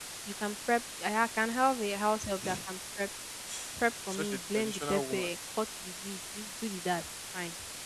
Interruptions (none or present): present